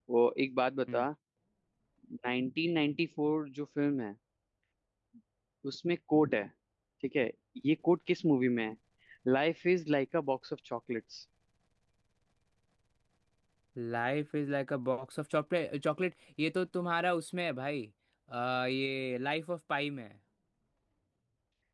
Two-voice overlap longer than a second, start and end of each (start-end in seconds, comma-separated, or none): none